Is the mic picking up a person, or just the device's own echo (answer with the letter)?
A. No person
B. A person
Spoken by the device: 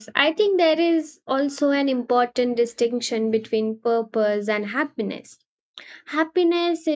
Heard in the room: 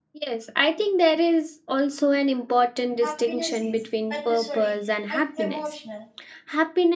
B